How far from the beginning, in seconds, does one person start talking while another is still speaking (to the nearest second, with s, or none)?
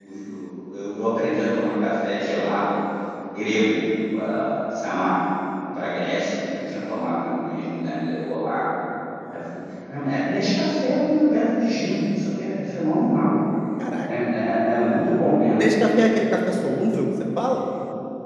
none